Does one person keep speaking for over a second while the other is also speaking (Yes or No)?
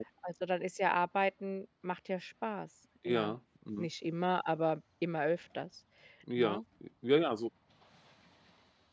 No